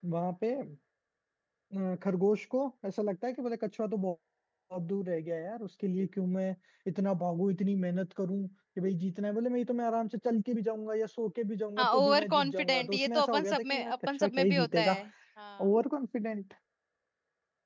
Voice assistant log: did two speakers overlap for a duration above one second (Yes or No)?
Yes